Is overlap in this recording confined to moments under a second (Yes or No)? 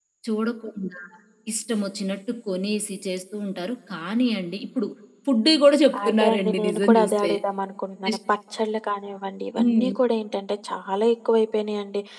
No